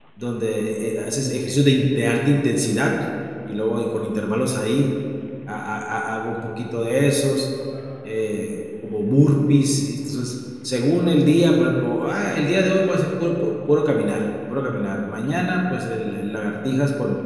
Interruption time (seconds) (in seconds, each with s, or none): none